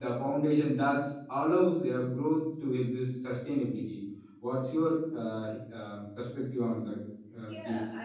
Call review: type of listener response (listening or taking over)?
taking over